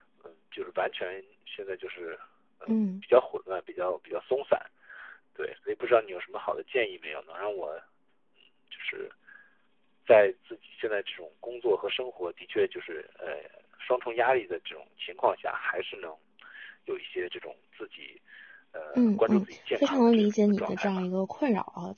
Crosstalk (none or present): present